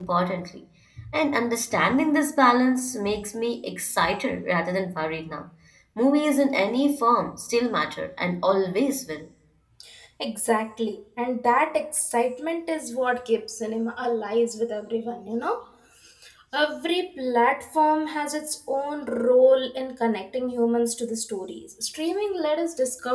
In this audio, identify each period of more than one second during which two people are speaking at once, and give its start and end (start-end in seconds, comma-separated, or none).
none